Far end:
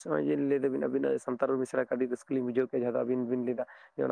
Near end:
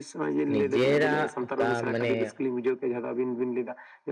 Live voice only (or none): ᱱᱤᱡᱮᱨᱟᱜ ᱚᱠᱟ ᱢᱟᱱᱮ